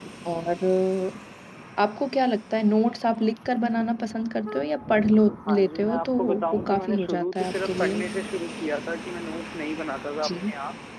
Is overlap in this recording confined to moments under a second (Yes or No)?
No